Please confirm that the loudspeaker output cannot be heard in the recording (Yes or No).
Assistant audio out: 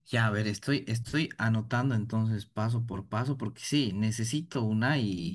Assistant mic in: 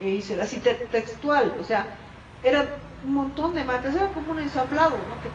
Yes